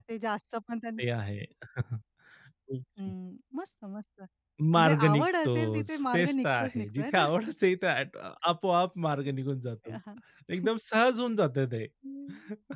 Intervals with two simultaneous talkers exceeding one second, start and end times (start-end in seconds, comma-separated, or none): 4.8-7.2